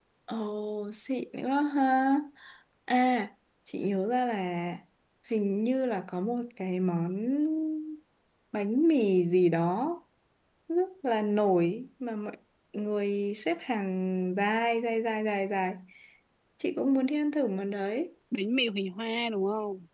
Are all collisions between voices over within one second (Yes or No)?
Yes